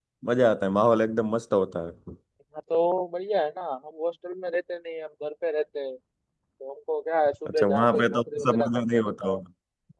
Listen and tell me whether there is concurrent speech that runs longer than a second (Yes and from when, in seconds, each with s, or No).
Yes, from 7.5 s